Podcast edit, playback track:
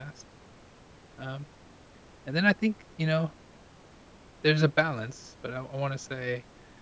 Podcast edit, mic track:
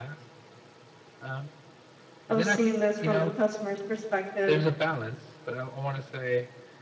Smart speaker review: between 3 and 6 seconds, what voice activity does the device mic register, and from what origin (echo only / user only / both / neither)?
both